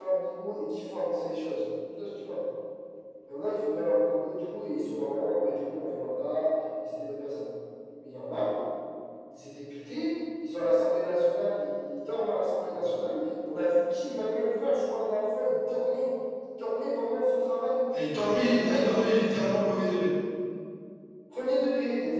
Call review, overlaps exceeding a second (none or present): none